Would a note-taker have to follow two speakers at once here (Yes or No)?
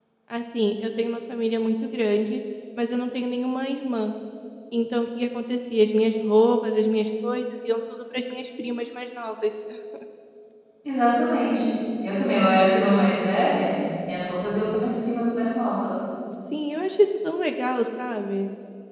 No